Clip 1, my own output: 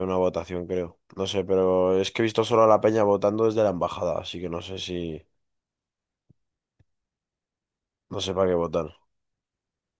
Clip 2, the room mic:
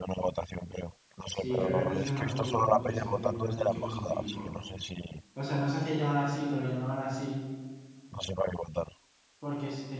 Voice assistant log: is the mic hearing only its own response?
No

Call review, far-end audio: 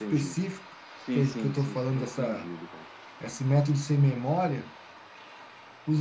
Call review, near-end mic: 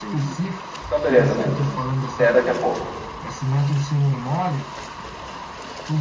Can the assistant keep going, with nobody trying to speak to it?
No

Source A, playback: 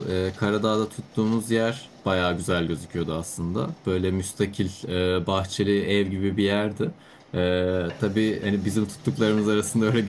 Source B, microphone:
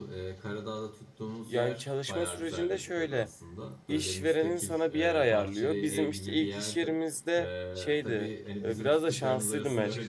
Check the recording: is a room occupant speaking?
Yes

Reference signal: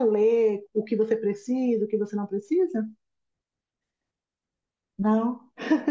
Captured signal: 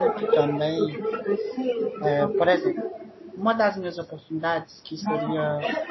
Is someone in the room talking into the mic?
Yes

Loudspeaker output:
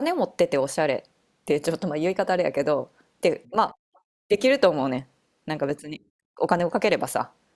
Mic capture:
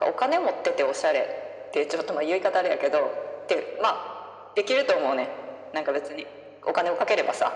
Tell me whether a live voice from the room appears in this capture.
No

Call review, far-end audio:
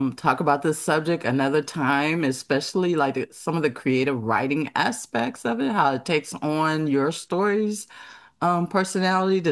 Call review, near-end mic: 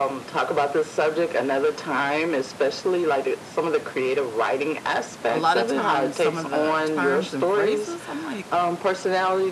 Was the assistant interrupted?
Yes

